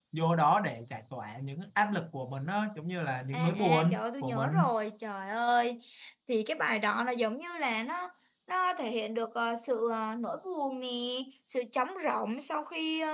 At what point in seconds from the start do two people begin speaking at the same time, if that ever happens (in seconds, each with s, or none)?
3.3 s